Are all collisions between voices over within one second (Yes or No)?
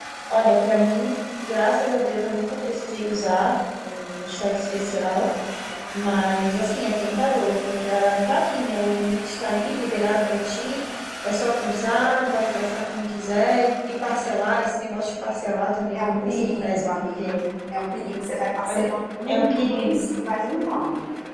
No